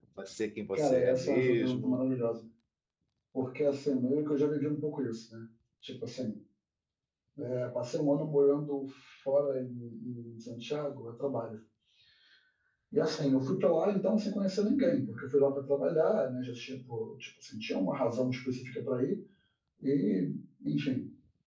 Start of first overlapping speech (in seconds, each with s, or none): 0.7 s